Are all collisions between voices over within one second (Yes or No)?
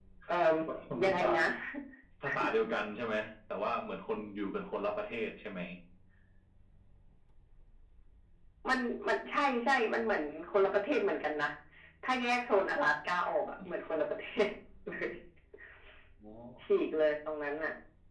Yes